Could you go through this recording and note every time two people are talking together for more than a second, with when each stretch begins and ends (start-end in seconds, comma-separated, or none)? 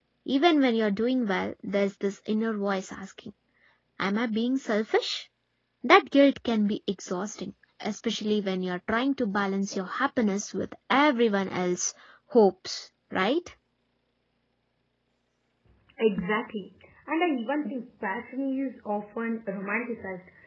none